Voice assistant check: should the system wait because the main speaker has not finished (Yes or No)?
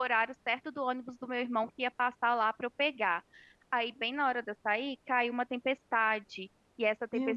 Yes